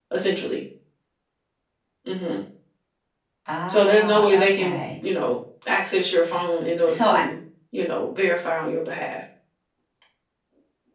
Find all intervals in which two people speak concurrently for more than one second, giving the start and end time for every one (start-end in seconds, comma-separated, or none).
3.7-4.9